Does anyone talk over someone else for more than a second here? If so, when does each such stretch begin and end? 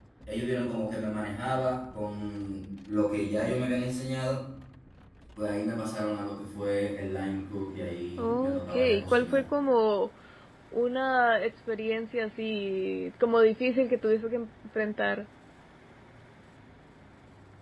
8.2-9.4

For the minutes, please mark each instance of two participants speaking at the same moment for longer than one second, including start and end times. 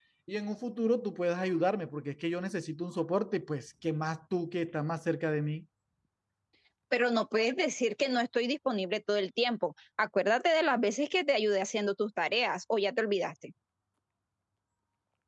none

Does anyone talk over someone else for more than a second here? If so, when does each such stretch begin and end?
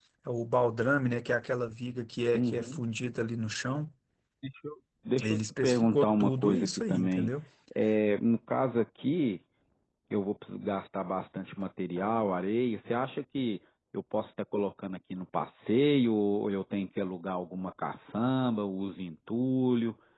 5.2-7.3

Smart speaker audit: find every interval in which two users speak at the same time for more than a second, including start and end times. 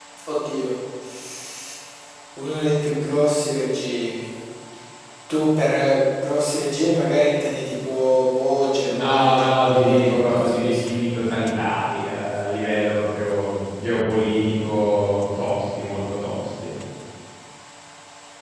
8.8-10.8

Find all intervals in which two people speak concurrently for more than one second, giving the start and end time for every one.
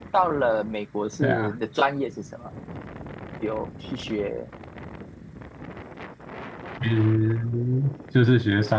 none

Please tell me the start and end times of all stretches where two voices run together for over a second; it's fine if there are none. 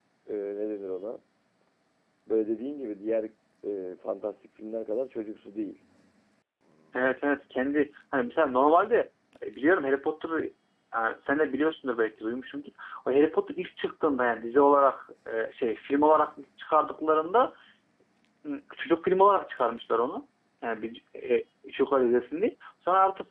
none

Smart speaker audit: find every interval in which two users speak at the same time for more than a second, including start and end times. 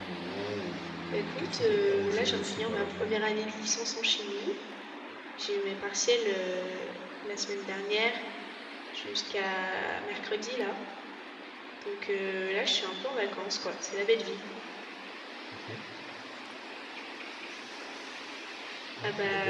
1.1-3.2

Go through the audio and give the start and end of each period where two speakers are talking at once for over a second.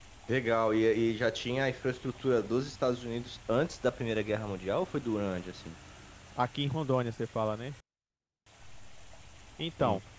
none

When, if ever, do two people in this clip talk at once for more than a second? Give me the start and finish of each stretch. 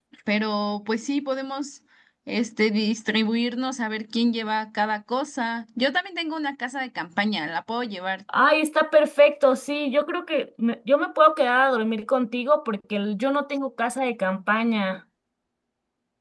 none

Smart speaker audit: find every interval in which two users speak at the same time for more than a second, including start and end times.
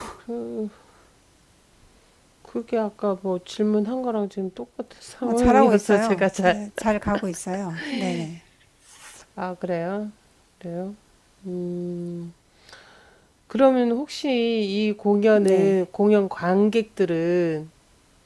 5.2-6.6

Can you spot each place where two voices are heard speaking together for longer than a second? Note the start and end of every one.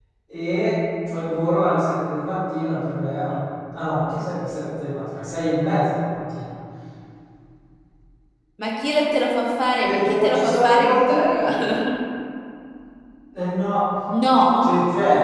9.8-11.4

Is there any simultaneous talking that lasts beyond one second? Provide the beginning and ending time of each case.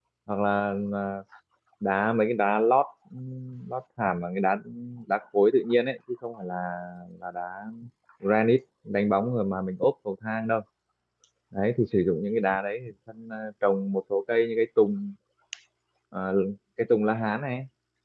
none

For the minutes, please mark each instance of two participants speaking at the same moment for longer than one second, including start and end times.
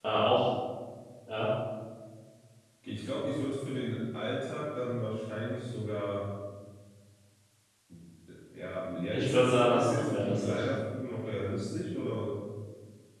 9.1-10.6

